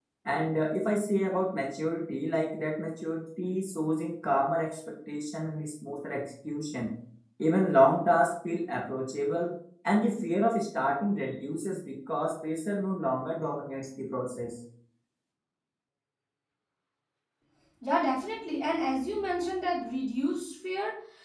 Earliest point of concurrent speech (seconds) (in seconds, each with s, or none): none